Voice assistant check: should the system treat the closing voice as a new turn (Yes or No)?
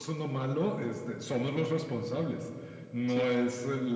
No